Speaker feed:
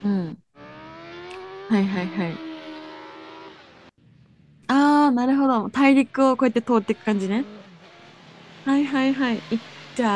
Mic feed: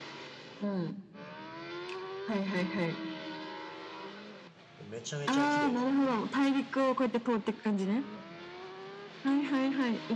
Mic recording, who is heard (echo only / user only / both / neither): both